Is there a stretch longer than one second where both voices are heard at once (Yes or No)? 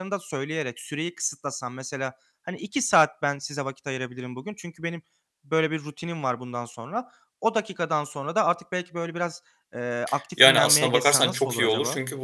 Yes